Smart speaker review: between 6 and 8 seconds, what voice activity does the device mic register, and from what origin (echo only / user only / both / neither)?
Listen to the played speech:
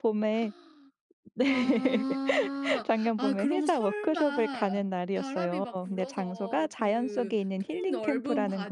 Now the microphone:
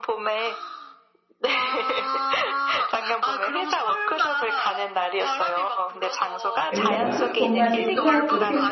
both